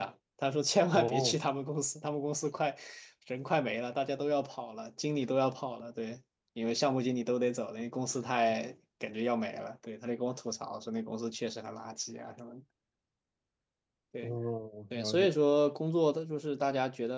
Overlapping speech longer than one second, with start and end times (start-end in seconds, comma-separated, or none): none